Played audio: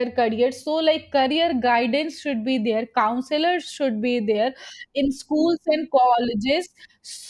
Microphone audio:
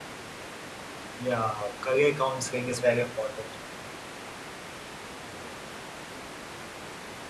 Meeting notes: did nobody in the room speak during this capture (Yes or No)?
No